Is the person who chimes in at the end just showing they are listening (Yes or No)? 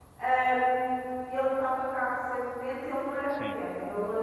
Yes